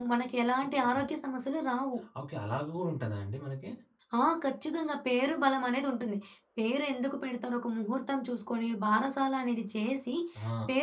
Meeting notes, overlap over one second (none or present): none